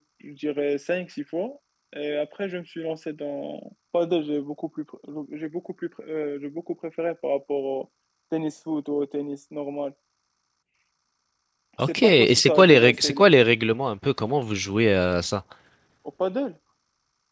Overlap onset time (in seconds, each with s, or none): 11.9 s